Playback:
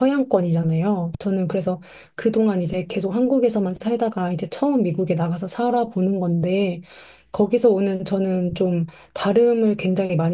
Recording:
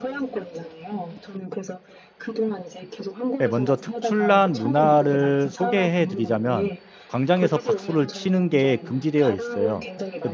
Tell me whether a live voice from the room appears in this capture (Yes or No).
Yes